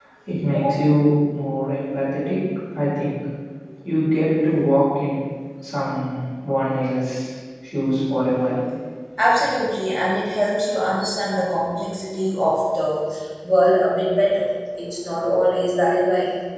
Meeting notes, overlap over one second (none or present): none